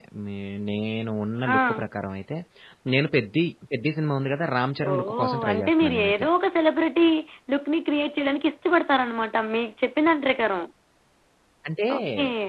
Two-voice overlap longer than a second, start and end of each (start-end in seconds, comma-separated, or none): 4.9-6.3